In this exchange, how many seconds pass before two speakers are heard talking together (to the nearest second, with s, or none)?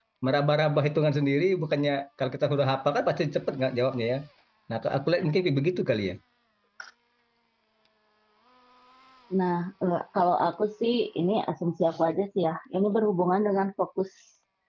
none